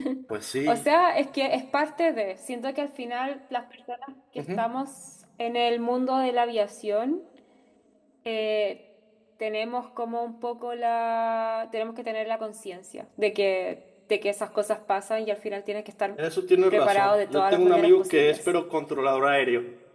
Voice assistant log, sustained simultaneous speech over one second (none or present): present